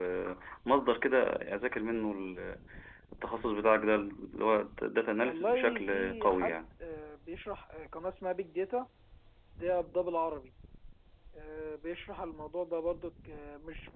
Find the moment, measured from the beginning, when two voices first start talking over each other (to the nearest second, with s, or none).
5 s